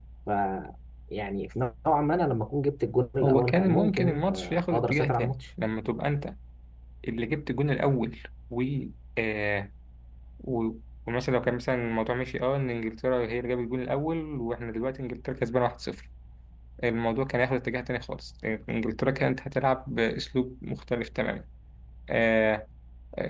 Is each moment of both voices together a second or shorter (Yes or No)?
No